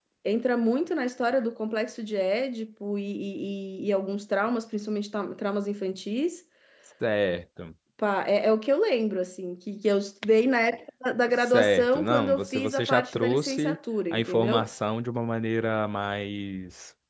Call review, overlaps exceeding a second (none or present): present